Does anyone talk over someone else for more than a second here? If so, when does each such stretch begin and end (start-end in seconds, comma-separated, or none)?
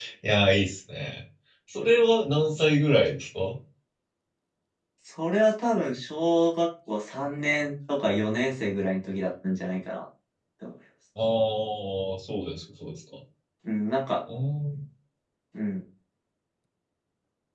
none